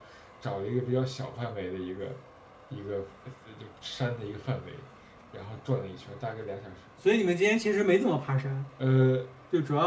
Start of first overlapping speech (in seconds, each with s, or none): none